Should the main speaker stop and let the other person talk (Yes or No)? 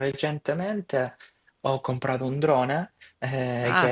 No